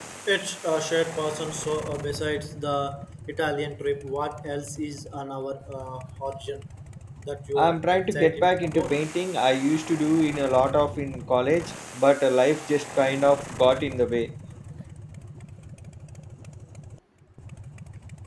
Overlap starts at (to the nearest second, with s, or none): 8 s